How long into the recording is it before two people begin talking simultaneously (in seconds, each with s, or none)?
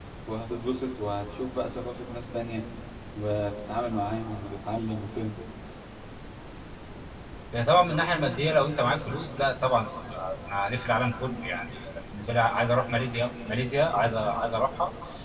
none